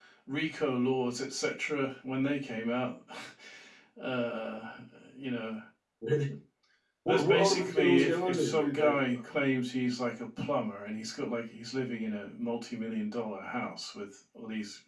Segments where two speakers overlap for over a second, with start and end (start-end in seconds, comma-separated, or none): 7.1-9.2